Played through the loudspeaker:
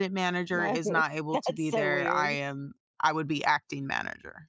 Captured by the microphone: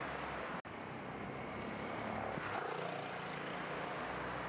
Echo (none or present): none